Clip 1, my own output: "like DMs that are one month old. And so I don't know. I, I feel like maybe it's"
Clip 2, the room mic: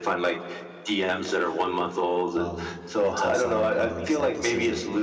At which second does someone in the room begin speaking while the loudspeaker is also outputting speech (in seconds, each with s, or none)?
2.3 s